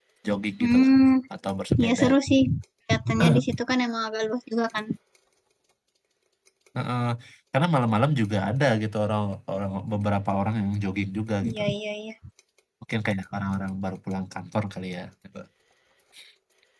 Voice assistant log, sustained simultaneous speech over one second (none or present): none